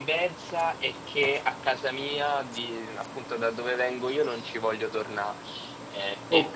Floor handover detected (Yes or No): No